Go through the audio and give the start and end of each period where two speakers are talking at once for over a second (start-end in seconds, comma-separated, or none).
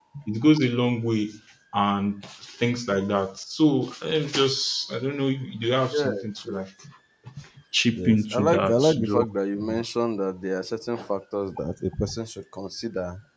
7.9-9.2